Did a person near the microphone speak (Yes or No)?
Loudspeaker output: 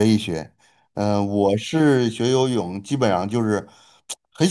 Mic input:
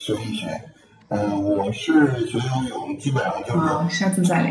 Yes